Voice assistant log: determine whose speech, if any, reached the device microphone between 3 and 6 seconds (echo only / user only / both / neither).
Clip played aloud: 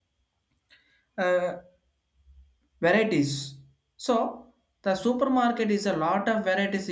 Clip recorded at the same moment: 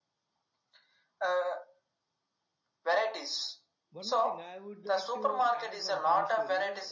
both